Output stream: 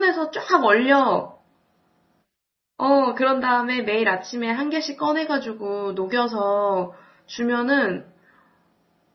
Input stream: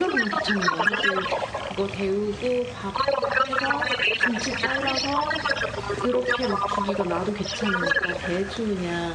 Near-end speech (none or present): present